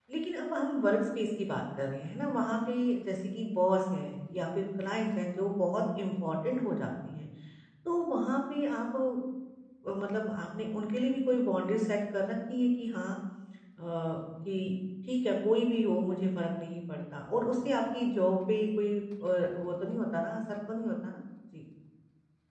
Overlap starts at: none

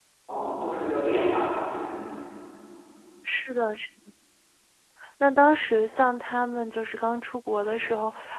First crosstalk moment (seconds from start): none

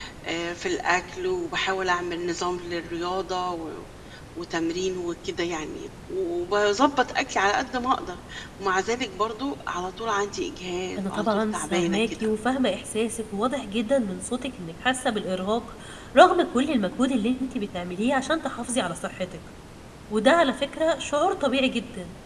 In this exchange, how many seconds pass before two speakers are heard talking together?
11 s

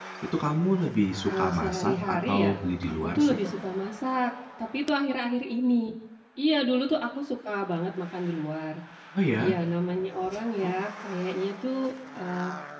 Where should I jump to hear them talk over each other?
1 s

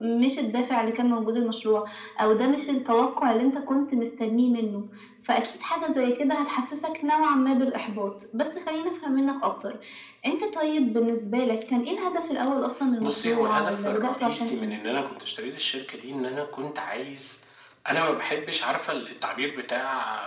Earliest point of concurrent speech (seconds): 13 s

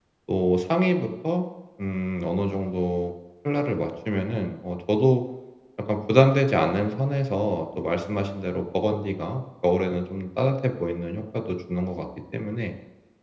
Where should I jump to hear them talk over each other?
none

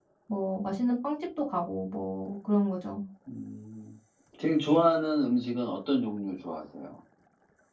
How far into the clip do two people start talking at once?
none

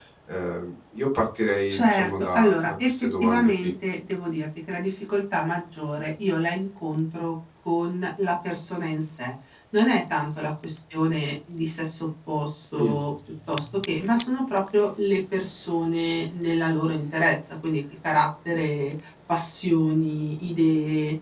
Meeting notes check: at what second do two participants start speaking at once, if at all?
2 s

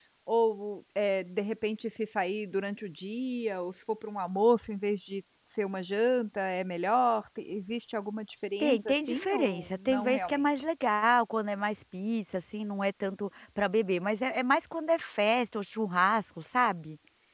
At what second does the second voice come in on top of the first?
9 s

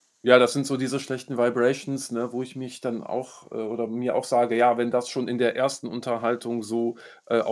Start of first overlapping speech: none

